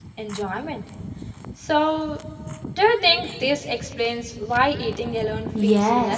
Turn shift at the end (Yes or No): Yes